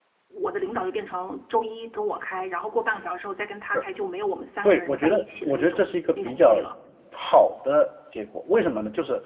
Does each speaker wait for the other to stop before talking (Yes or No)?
No